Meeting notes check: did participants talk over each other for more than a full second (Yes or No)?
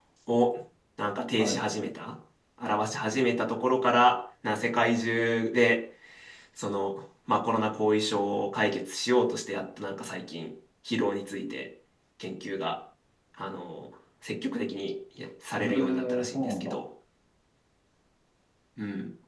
Yes